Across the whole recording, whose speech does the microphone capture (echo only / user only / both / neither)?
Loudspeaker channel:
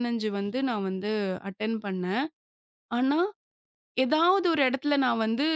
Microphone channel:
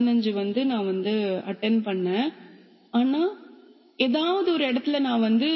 echo only